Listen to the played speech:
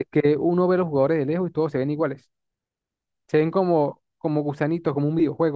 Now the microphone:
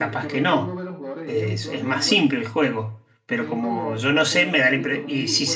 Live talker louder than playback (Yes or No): Yes